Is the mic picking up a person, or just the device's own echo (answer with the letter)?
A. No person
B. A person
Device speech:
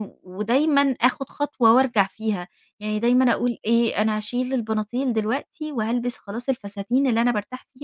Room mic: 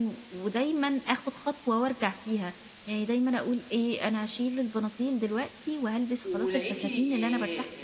B